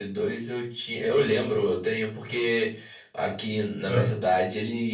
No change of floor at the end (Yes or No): Yes